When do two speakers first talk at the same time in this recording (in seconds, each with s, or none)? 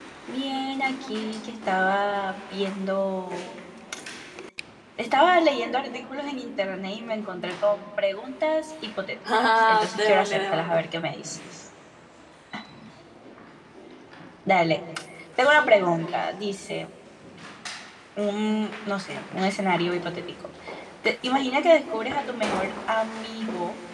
9.2 s